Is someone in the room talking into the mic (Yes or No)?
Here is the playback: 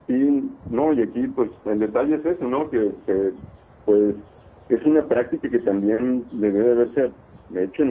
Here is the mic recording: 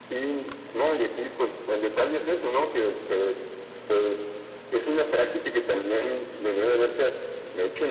No